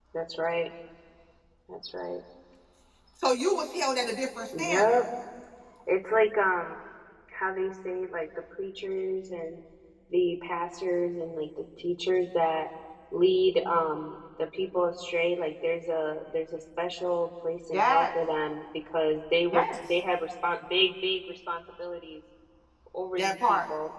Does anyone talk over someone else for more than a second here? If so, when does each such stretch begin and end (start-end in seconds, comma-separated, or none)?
none